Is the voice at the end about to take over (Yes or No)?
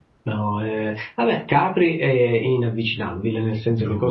No